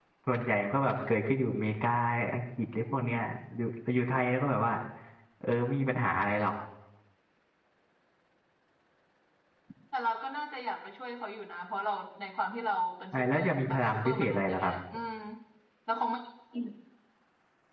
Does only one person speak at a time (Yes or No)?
No